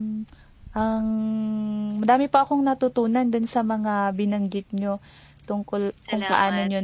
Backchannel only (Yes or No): Yes